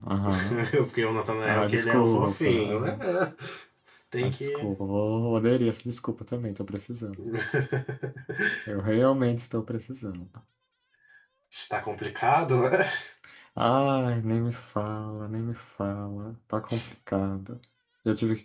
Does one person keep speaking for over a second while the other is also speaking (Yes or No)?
Yes